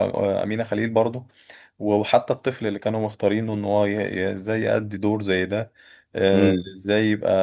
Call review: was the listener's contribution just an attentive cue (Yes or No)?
Yes